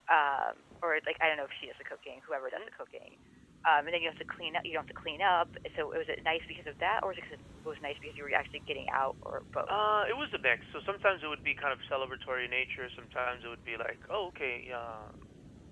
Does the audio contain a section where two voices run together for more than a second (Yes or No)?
No